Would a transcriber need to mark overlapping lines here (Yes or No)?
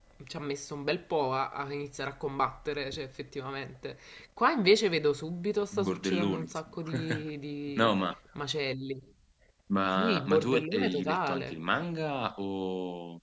Yes